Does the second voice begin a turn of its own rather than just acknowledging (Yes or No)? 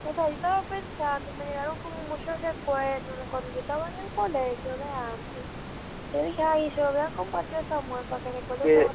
Yes